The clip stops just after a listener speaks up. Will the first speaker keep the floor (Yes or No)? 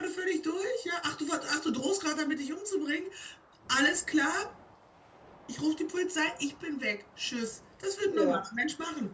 Yes